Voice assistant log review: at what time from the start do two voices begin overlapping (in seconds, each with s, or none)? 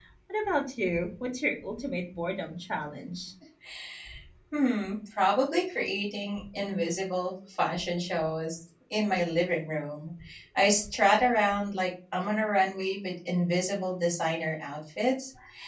none